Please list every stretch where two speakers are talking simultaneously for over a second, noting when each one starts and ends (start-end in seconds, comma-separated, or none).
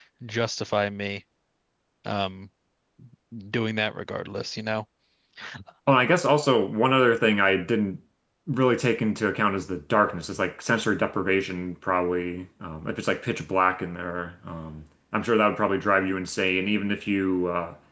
none